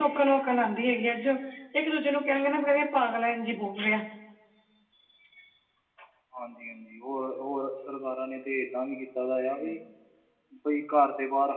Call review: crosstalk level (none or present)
none